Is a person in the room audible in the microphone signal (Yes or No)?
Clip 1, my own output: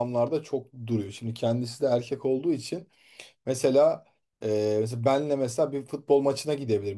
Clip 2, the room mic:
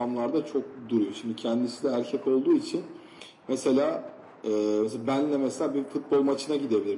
No